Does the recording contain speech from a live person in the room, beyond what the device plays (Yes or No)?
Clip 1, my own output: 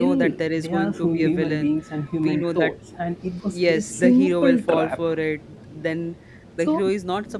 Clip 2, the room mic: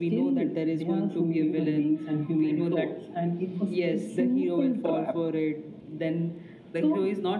No